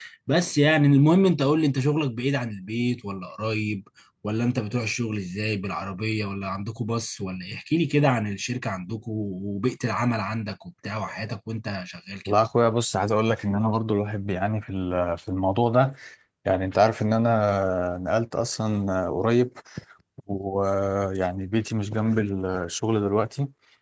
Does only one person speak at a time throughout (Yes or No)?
Yes